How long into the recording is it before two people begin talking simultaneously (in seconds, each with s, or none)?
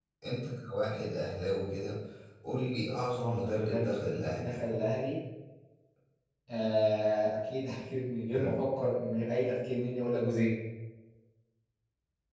3.2 s